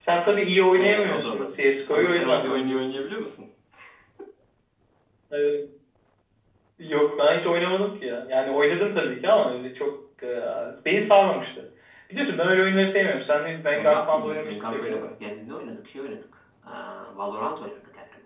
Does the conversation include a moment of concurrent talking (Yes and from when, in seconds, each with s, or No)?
Yes, from 0.7 s